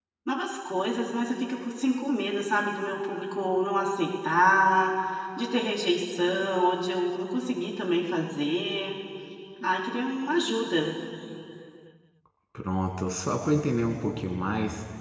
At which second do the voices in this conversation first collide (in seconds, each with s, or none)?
none